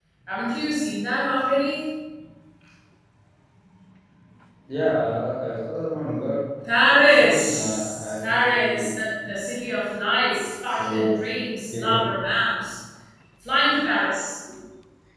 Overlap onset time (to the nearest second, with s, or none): 7 s